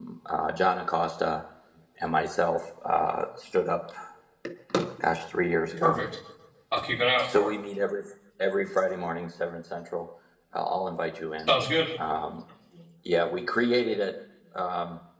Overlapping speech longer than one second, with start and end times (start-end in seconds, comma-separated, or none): none